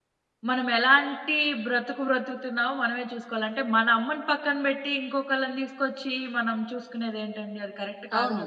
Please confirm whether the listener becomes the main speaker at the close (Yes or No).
Yes